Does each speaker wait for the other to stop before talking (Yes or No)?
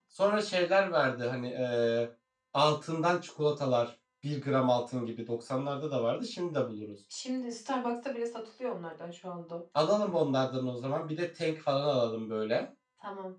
Yes